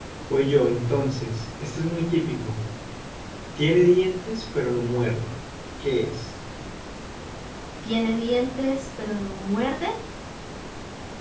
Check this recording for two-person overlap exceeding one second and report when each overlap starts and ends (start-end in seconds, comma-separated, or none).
none